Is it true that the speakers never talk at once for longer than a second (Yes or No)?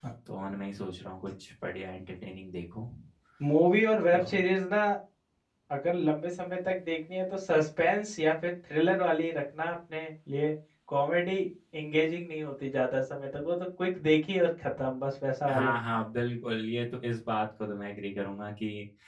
Yes